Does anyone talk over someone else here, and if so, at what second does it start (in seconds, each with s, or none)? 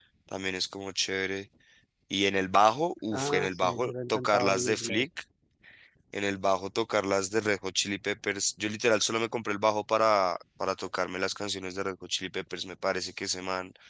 3.1 s